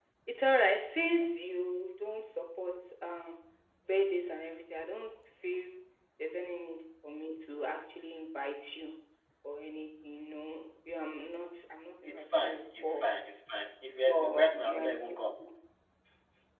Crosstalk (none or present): present